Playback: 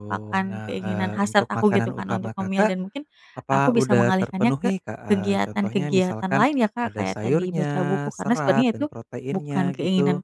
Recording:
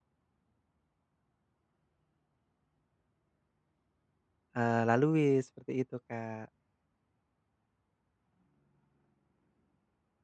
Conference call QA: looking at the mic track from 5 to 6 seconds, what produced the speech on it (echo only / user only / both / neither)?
user only